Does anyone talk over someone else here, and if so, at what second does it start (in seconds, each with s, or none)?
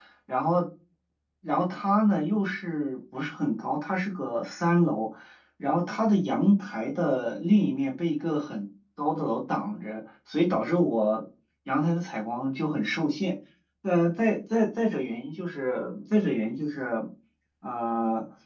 none